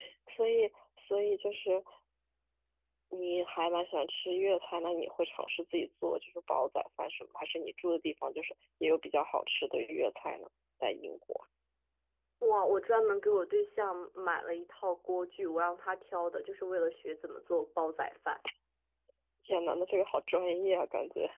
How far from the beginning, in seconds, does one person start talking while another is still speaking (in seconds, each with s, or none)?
none